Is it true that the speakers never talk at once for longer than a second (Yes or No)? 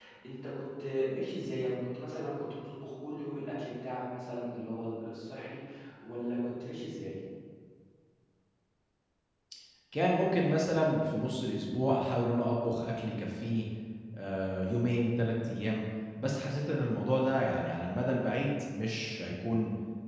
Yes